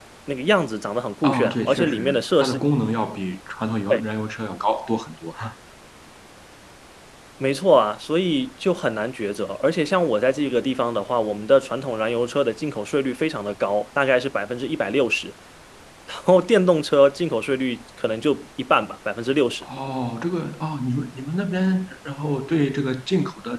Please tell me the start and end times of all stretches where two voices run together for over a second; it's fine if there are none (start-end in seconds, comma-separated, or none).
1.2-2.6